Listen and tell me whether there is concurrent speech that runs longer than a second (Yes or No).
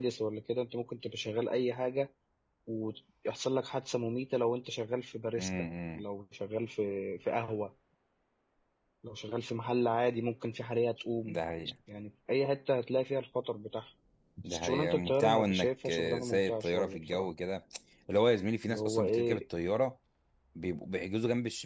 Yes